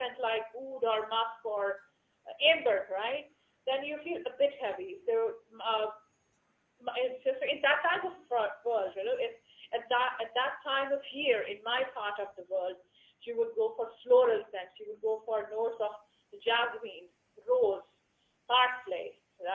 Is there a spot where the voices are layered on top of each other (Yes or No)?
No